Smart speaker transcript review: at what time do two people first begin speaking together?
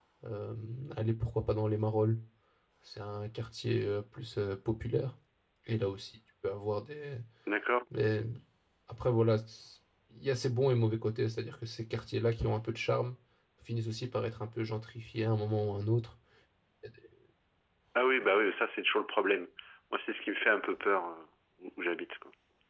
none

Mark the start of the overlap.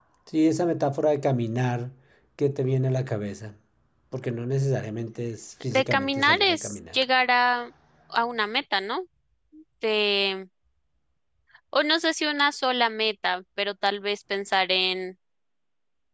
6 s

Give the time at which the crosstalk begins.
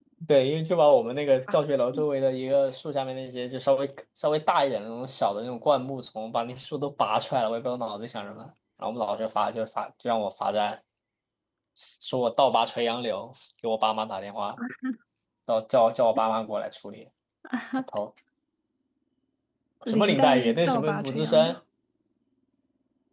20 s

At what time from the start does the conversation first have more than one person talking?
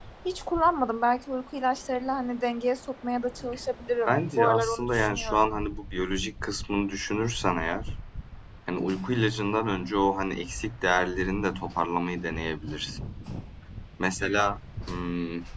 4 s

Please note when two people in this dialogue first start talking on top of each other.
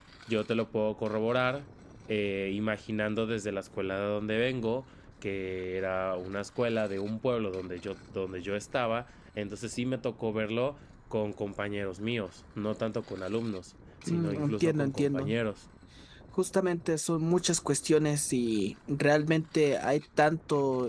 14 s

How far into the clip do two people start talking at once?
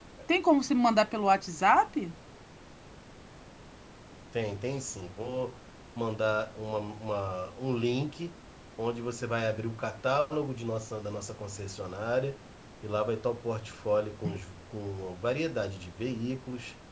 none

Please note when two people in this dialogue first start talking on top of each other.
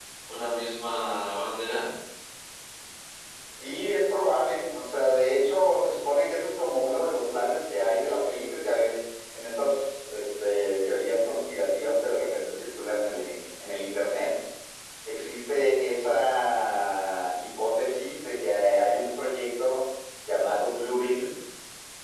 none

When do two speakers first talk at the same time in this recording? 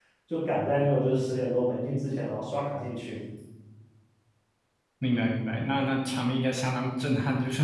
none

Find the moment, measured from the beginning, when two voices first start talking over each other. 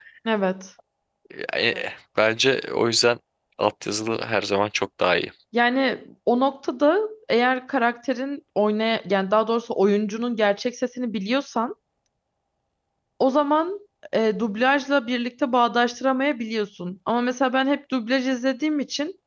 none

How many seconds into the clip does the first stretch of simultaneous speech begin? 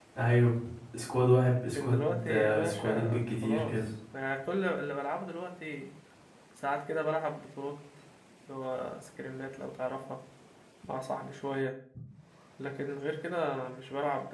2 s

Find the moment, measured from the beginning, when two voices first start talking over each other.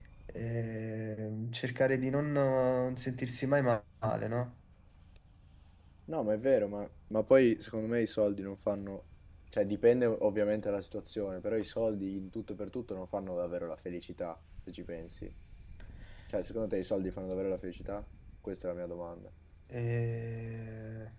none

